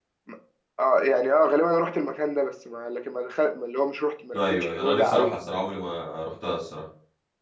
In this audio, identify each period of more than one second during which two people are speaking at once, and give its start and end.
4.3-5.6

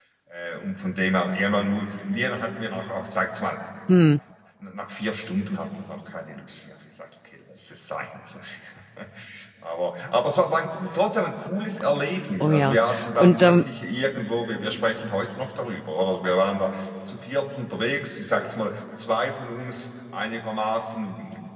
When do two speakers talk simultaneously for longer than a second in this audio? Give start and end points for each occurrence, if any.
12.4-13.6

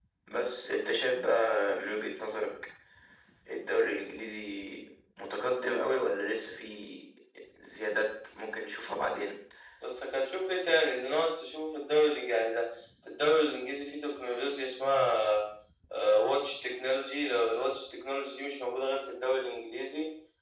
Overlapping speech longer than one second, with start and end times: none

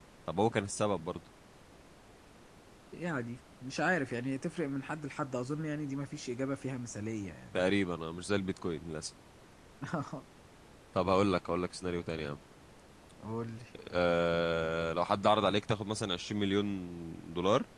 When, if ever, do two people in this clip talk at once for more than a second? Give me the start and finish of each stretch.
none

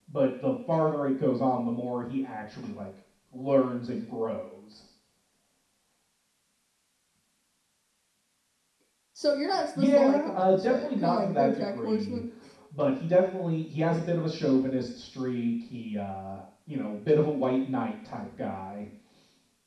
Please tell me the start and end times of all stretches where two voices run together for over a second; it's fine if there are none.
9.7-12.2

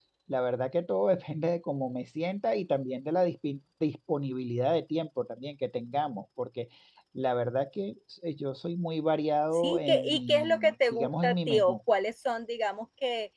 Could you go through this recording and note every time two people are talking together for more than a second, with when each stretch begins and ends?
9.5-11.8

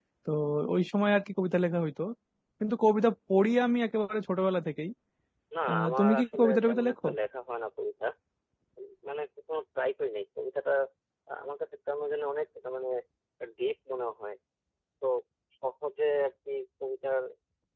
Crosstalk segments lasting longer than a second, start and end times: 5.7-7.1

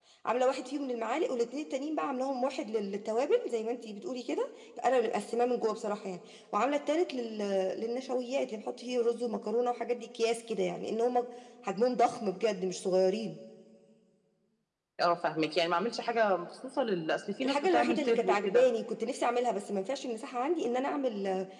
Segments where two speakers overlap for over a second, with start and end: 17.4-18.6

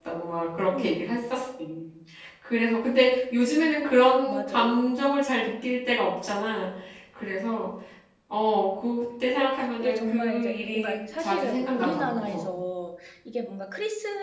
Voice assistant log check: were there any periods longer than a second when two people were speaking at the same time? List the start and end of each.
9.8-12.5

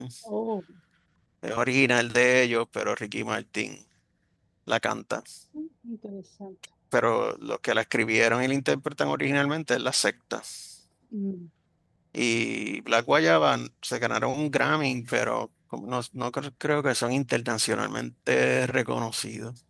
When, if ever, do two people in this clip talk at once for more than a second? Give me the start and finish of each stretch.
none

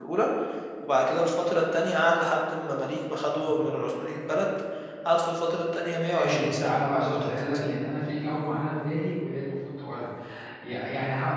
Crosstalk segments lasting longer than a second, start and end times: 6.1-7.7

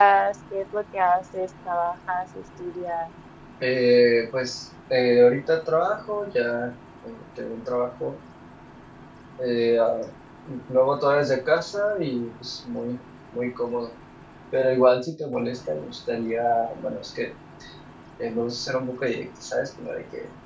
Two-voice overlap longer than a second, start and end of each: none

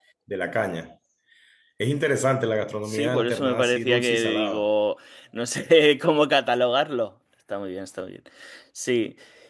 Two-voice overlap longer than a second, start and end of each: 2.9-4.7

